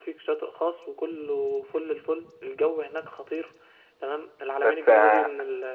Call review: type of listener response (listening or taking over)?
listening